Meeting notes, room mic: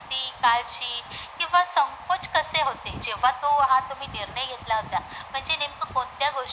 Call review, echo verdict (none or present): present